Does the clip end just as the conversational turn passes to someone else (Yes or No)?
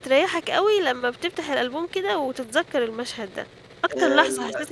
Yes